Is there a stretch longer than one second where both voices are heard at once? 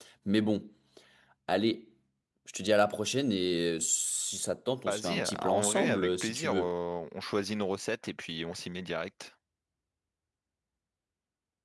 Yes, from 4.9 s

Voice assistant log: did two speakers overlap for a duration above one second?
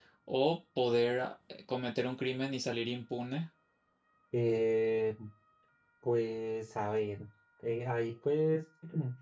No

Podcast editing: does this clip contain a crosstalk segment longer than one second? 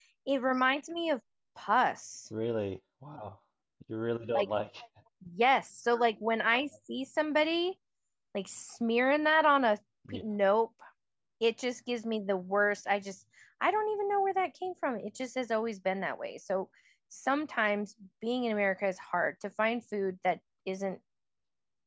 No

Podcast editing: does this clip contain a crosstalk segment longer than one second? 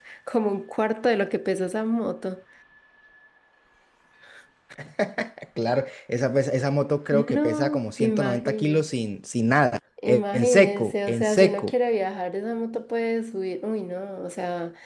Yes, from 7.1 s

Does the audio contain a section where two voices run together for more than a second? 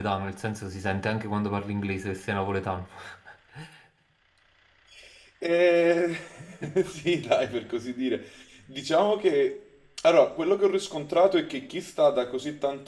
No

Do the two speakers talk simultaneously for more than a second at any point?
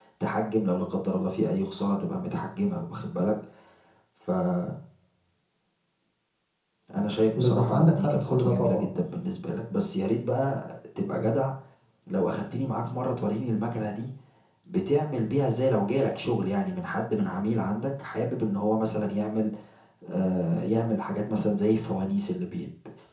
Yes, from 7.4 s

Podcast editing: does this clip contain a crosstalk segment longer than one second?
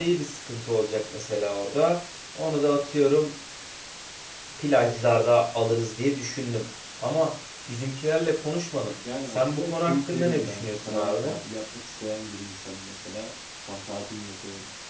Yes, from 9.0 s

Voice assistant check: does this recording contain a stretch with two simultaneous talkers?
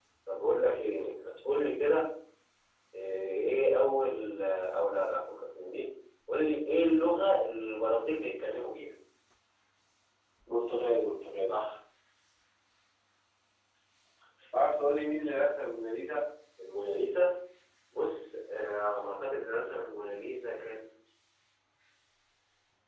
No

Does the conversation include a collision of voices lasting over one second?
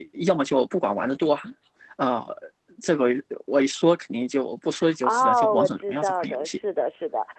Yes, from 4.8 s

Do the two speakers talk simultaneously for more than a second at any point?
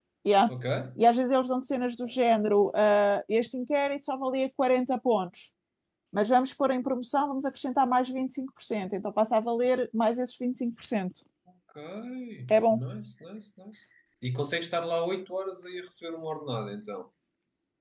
No

